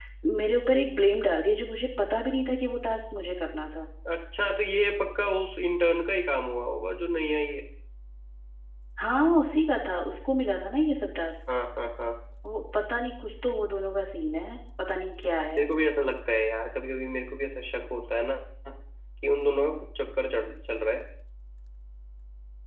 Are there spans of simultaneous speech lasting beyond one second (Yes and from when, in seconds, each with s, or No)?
No